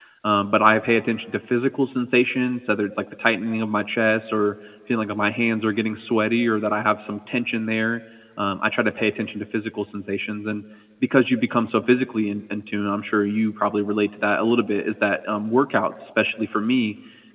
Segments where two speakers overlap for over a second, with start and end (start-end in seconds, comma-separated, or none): none